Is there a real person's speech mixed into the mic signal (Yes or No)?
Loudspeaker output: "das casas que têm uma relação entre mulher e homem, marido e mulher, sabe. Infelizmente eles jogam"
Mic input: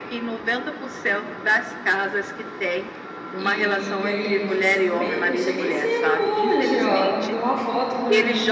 Yes